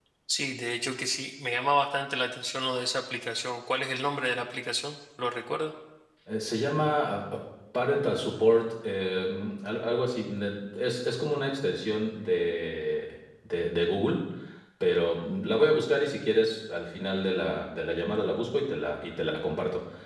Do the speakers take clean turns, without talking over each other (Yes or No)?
Yes